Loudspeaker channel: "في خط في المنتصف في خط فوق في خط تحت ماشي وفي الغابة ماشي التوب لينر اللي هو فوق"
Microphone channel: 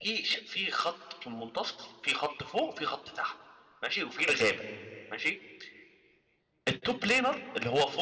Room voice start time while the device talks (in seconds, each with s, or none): none